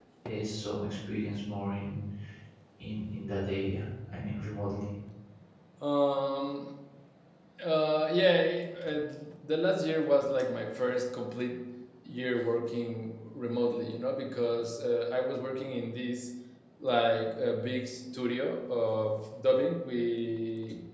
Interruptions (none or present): none